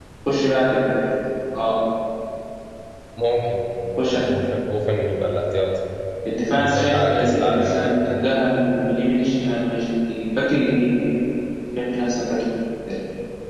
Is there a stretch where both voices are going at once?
Yes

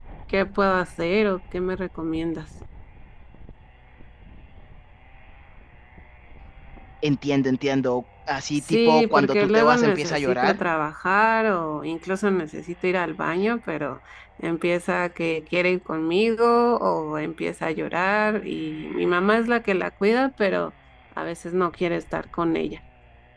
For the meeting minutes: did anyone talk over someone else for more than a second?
Yes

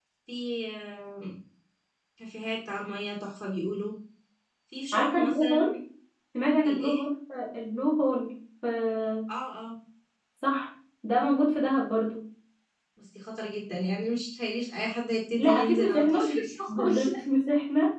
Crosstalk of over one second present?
Yes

